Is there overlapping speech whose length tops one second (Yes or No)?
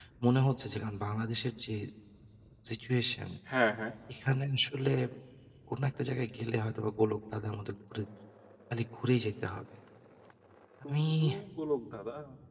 No